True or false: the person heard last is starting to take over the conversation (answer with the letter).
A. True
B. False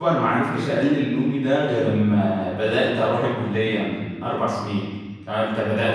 A